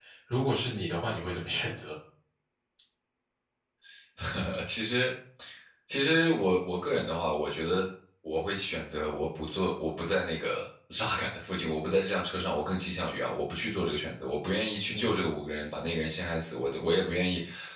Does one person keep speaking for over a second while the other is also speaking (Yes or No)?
No